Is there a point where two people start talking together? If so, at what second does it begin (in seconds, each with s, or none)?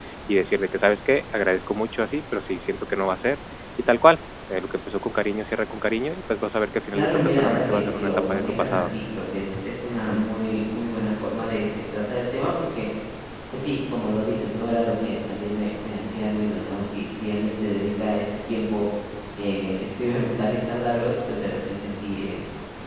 6.9 s